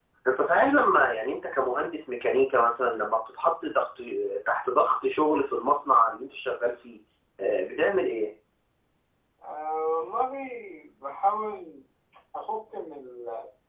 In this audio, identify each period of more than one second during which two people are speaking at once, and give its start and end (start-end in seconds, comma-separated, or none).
none